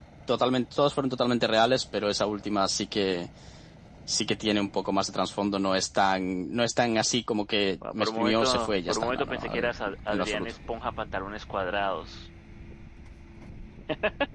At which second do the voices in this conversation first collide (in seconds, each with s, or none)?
7.9 s